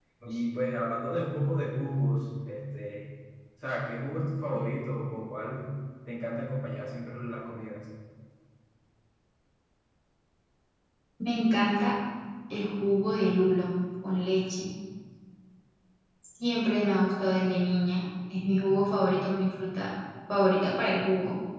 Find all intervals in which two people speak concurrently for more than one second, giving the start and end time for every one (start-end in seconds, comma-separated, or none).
none